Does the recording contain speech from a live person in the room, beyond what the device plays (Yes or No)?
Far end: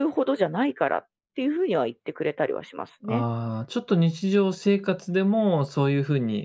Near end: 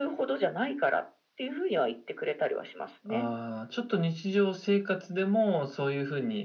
No